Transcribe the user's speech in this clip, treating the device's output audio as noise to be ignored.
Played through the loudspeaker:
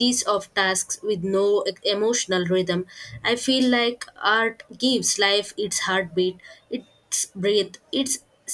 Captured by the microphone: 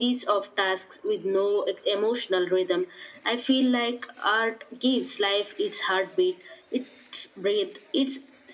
none

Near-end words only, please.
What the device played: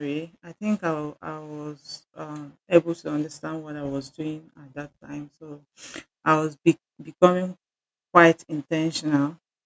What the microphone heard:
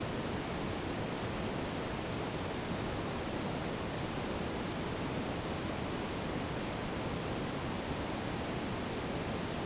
none

